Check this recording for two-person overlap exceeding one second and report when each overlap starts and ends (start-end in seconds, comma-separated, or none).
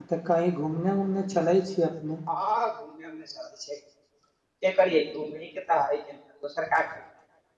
none